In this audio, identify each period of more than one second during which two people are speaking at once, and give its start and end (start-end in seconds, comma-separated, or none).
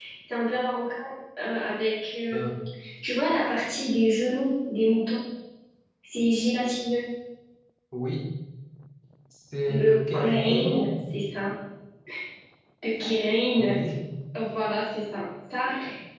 9.7-10.9